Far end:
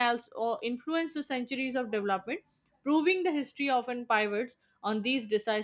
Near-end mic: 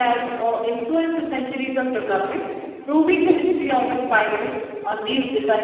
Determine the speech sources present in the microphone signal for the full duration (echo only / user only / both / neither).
echo only